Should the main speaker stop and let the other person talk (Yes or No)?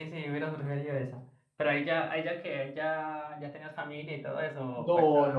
Yes